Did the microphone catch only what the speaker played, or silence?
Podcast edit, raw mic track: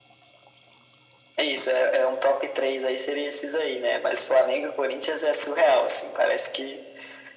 Yes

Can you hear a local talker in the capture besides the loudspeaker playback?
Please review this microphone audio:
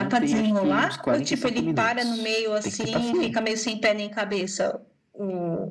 No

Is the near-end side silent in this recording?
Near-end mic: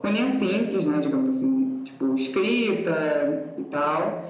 Yes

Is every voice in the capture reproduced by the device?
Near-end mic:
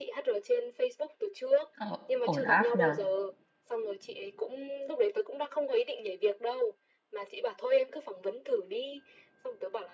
No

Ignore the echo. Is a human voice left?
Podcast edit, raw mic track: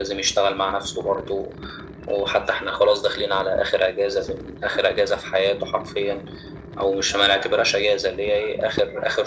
No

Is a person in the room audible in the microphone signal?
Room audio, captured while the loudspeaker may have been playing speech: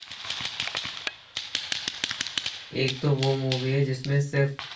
Yes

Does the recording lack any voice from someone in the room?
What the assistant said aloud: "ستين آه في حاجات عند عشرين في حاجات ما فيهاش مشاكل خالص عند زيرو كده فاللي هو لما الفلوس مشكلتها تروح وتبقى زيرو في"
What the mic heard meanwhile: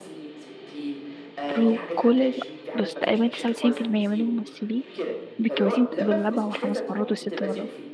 No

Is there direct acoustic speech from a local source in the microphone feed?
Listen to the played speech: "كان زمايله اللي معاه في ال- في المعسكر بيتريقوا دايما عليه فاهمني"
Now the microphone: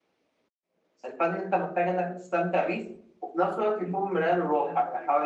Yes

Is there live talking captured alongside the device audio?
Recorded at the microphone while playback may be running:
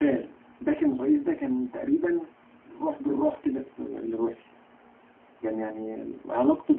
Yes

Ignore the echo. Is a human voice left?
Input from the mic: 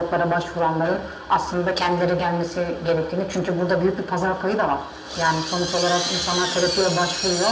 No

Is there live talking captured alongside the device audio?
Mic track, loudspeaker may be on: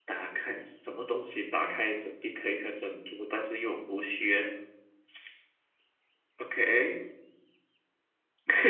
No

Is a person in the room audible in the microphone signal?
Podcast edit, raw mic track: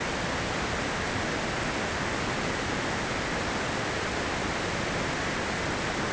No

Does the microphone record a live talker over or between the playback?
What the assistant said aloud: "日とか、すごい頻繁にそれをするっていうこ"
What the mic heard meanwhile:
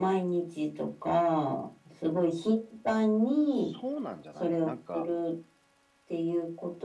Yes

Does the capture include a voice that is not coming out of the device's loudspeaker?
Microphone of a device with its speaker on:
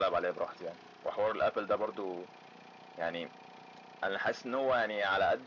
No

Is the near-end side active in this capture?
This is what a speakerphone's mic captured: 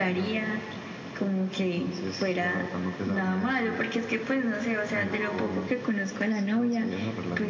No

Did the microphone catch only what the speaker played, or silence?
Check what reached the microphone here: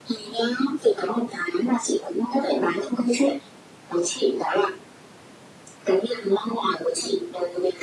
Yes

